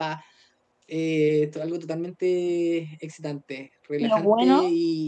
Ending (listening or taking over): listening